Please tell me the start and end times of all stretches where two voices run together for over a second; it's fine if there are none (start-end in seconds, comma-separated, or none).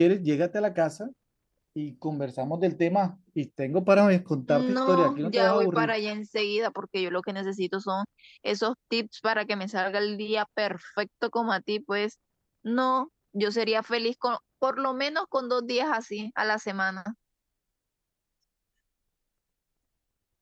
4.5-5.9